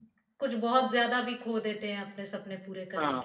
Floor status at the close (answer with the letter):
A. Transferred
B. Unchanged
A